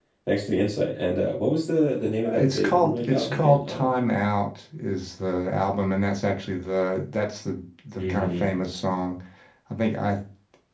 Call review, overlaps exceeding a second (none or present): present